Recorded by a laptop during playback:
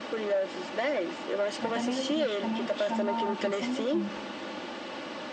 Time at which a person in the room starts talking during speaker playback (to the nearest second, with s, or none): 2 s